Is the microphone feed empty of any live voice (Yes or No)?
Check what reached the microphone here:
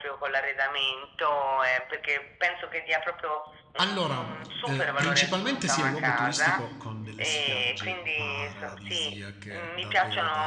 No